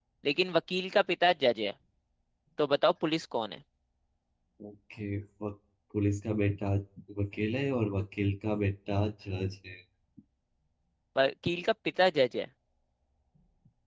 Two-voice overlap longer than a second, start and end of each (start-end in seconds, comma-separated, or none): none